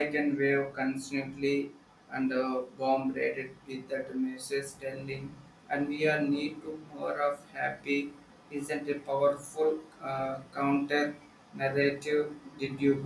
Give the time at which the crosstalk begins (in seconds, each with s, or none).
none